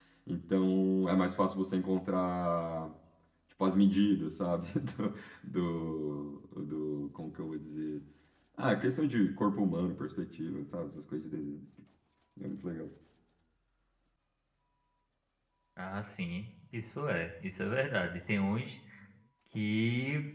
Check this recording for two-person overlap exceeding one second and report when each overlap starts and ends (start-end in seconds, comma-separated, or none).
none